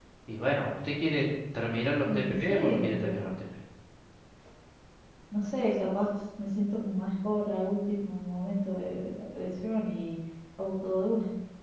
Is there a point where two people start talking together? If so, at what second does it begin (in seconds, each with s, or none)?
2.0 s